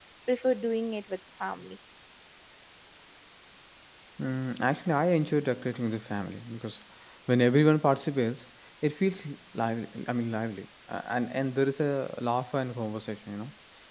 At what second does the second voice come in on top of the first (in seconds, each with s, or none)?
none